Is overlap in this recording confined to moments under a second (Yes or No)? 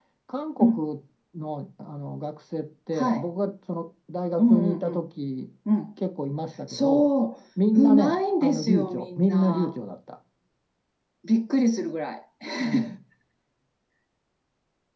No